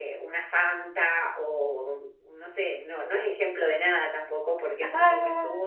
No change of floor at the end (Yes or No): Yes